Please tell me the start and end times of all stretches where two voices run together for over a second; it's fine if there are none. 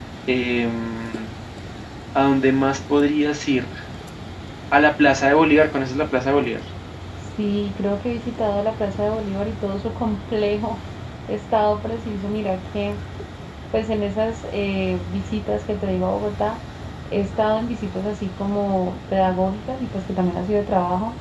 none

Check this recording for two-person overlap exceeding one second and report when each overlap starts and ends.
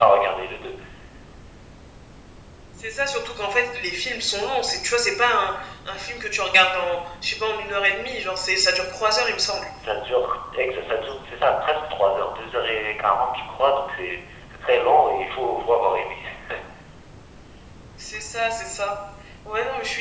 none

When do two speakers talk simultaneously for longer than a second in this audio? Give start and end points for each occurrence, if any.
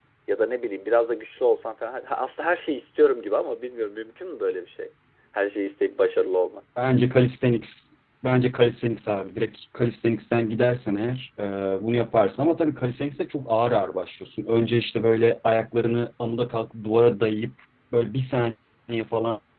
none

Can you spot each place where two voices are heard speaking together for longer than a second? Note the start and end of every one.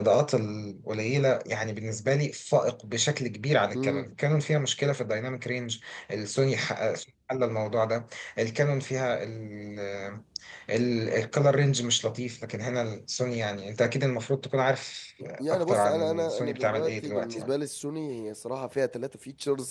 15.5-17.5

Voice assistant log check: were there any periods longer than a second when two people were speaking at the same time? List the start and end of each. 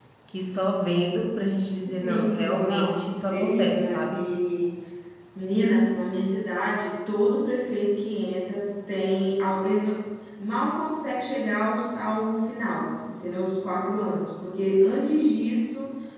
1.8-4.3

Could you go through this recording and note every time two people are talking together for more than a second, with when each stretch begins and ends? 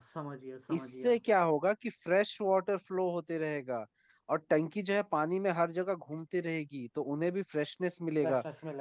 none

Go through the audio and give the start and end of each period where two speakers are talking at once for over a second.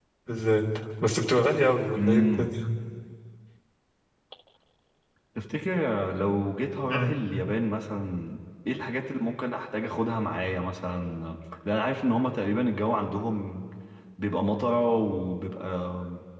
none

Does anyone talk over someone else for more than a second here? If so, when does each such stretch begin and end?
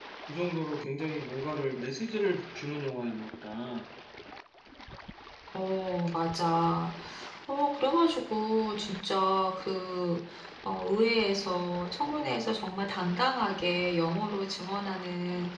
none

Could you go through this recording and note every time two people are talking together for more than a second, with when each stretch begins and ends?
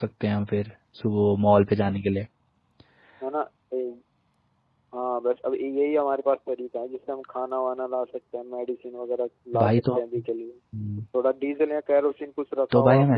none

